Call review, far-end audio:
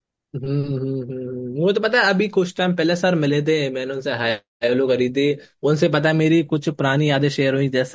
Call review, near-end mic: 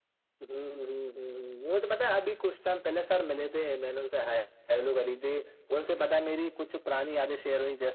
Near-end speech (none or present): none